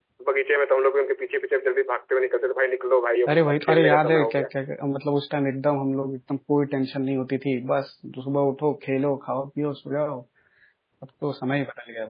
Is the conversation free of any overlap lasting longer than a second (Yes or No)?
No